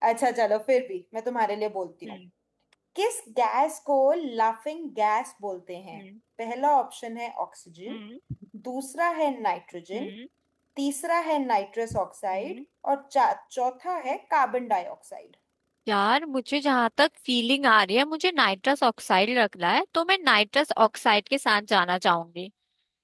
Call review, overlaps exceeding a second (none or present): none